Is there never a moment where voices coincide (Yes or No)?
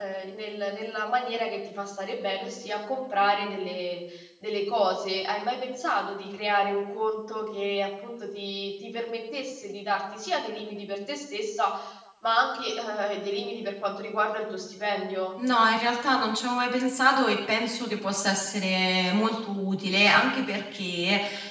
Yes